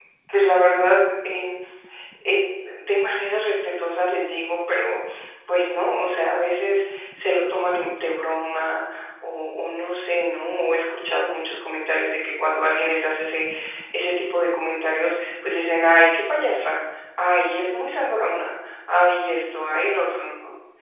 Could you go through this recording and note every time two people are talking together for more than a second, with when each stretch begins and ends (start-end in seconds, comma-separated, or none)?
none